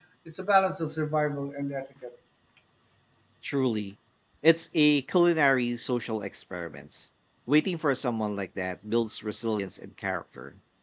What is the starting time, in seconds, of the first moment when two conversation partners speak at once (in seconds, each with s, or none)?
none